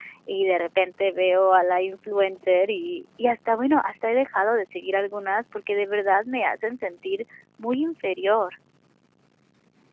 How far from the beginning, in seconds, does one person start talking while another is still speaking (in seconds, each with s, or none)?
none